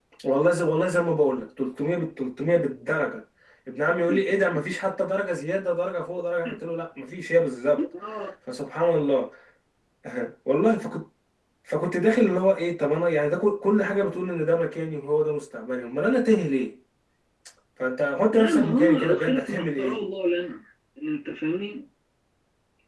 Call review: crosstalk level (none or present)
present